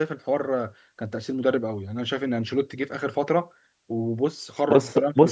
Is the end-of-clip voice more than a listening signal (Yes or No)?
Yes